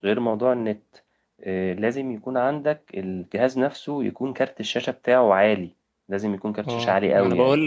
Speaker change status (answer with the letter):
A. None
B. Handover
B